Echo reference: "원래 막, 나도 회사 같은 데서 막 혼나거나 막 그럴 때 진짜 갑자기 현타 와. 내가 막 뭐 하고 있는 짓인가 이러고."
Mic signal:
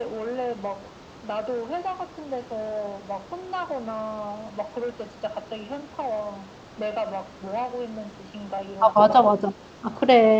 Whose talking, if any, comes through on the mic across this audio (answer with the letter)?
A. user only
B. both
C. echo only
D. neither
B